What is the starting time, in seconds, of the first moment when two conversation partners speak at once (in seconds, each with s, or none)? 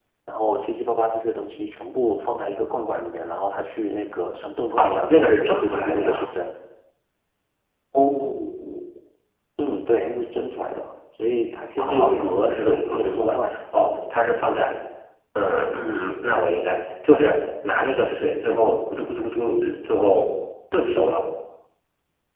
4.8 s